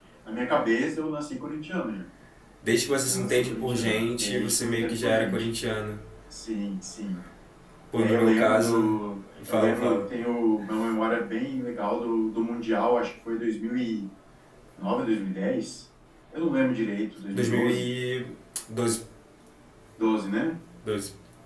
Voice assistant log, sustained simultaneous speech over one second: present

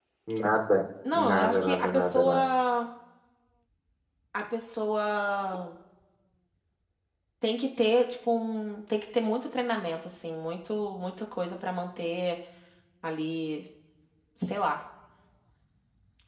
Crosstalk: present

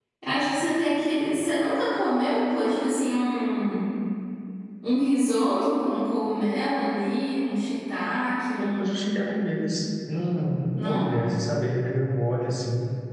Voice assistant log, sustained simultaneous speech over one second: none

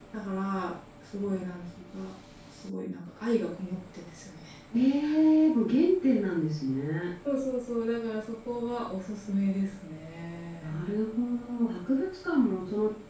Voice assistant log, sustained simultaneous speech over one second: none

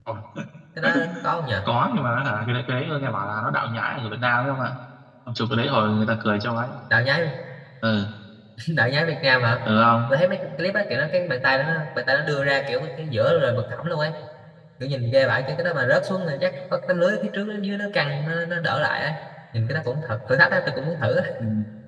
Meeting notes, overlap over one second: none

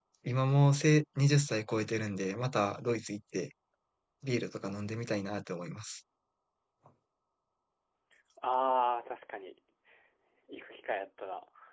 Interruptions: none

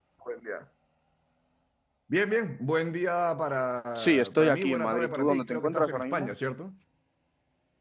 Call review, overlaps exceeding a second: present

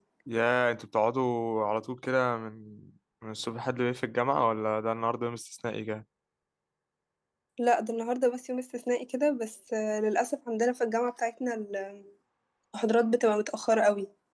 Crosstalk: none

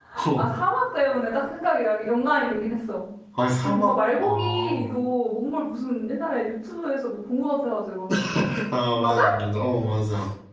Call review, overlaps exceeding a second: present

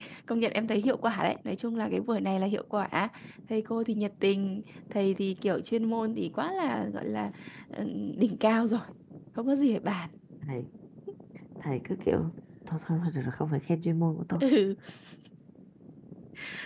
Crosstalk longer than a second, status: none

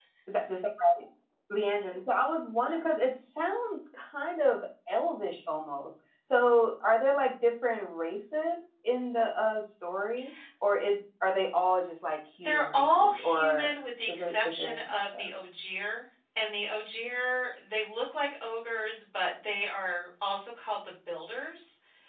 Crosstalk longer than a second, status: present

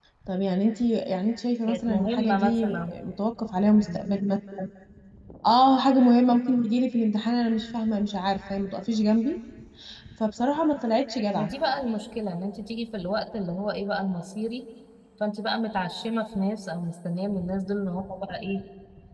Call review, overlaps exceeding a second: present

